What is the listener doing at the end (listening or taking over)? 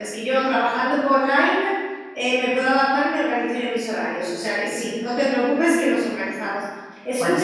listening